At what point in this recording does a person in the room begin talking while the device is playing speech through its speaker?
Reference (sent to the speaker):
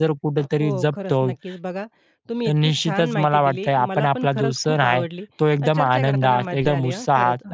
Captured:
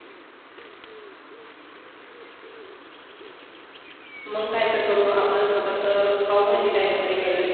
4.2 s

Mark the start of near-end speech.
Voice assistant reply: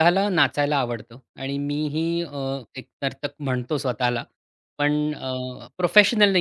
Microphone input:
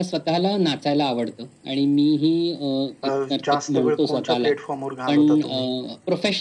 3.0 s

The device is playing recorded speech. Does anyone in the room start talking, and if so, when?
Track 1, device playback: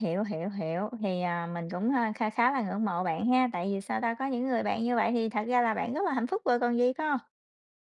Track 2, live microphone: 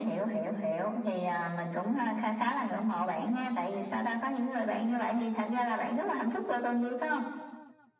none

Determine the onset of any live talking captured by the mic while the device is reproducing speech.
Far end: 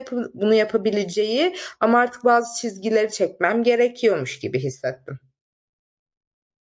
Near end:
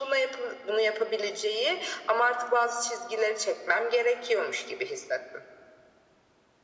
none

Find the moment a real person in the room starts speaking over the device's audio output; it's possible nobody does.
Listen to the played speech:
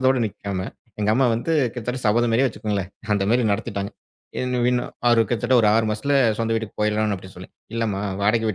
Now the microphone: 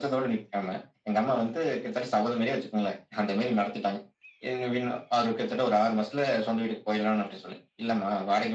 none

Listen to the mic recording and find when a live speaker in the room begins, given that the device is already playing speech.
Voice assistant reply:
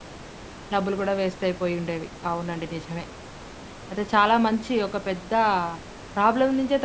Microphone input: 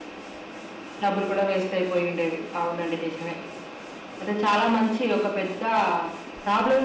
none

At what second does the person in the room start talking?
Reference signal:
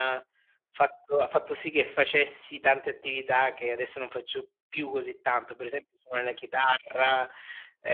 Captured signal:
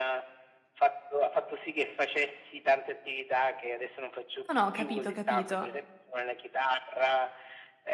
4.5 s

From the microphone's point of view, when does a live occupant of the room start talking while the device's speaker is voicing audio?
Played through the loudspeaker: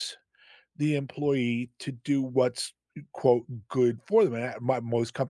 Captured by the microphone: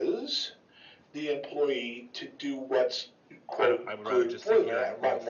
3.6 s

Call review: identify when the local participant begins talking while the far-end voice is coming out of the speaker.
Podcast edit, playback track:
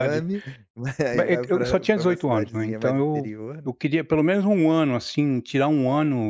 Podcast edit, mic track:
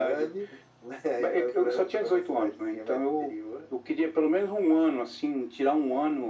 none

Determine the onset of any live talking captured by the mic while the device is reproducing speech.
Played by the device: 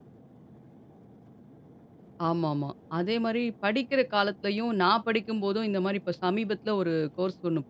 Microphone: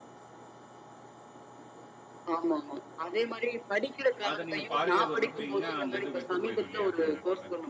4.3 s

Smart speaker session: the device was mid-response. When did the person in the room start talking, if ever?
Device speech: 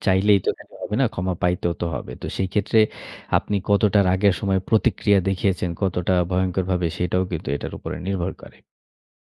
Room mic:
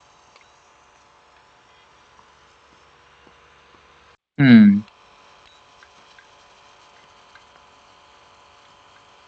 4.4 s

